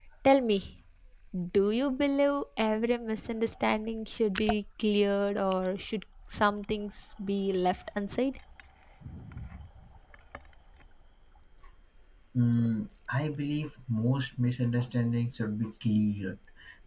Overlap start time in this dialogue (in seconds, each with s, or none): none